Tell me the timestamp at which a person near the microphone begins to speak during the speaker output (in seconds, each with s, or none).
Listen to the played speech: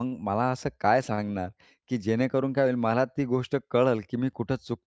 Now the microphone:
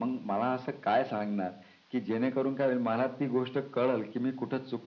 none